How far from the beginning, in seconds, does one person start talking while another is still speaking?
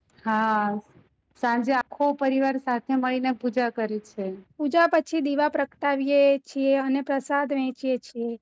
none

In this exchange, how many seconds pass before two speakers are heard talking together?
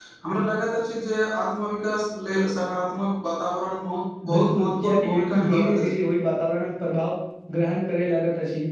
4 s

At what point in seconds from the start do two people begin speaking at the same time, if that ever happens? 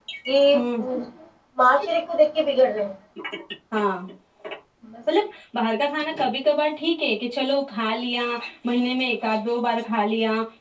none

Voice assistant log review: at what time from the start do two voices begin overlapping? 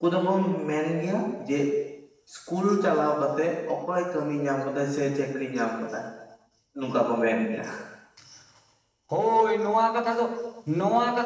none

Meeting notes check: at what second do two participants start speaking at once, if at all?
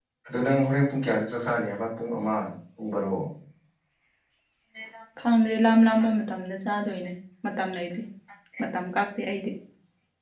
none

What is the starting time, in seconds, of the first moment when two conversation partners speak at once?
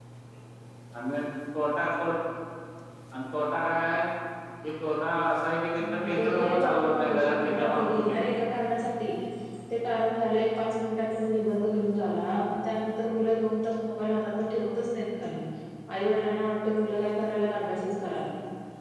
6 s

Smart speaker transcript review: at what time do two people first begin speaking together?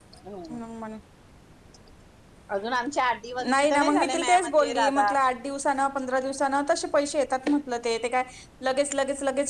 3 s

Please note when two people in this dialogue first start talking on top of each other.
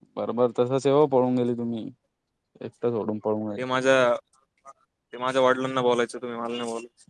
none

